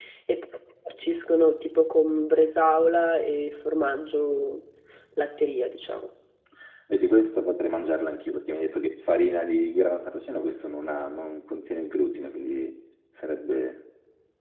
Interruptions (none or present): none